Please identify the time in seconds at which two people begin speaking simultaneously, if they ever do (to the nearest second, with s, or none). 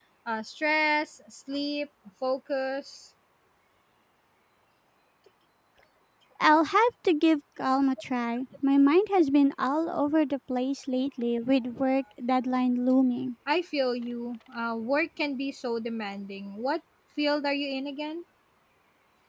none